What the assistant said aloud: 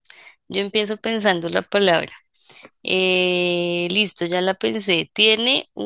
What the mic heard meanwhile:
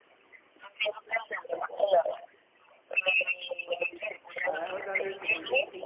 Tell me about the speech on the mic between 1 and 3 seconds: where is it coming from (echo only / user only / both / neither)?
echo only